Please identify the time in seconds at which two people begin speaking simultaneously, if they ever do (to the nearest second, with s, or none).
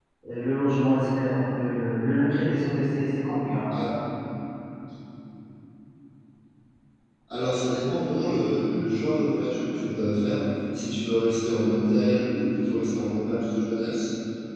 none